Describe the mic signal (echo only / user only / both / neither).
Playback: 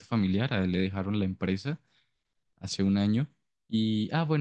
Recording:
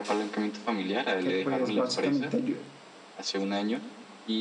both